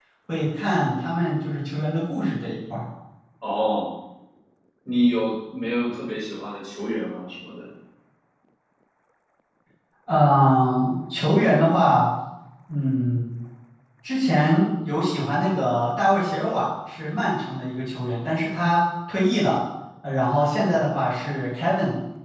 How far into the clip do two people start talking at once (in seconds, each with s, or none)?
none